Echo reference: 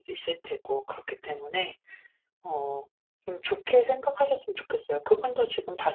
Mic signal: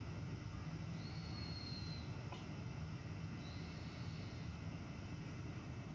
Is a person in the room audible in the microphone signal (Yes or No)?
No